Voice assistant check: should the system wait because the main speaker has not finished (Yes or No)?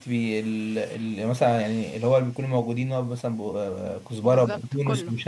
Yes